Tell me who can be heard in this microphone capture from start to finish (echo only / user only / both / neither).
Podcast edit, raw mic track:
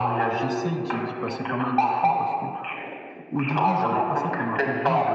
both